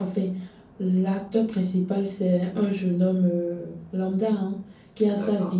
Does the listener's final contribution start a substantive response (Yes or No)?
No